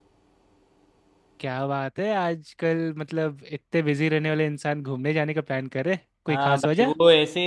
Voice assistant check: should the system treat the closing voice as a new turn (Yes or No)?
Yes